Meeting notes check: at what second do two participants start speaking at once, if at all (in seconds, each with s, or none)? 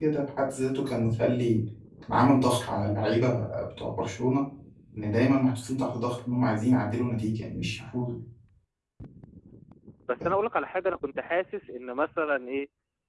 none